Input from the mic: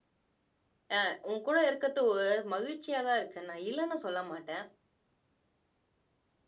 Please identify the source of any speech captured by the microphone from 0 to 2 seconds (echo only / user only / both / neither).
user only